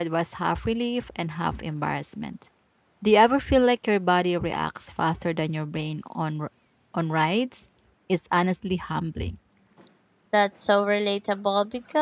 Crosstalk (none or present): none